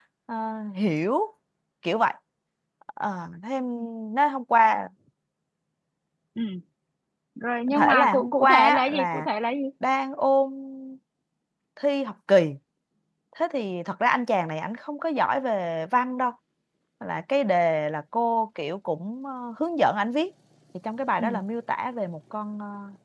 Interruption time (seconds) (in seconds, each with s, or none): 7.7 s